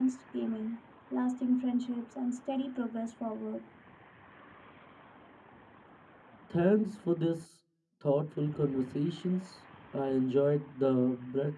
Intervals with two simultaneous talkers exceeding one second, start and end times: none

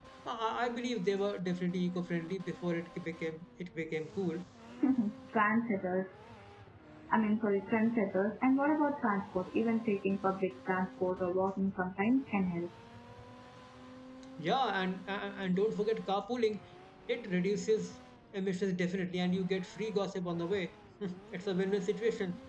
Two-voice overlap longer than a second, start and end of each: none

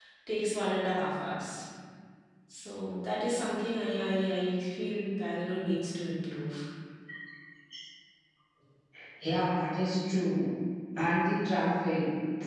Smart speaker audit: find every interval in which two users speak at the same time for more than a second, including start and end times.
none

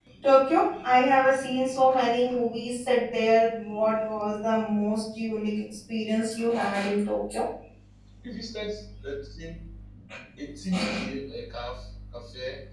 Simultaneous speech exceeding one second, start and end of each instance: none

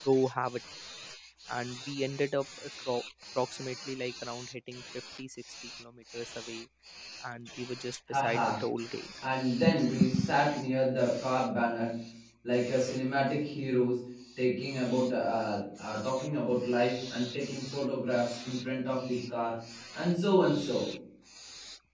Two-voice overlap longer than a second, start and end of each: none

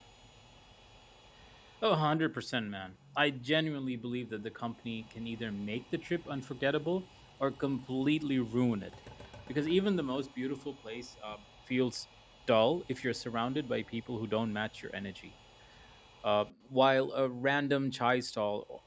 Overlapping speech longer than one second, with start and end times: none

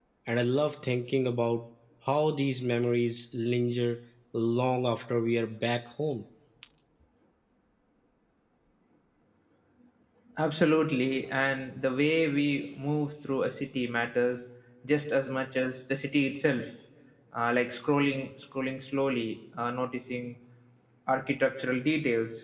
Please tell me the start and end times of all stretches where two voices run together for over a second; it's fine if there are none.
none

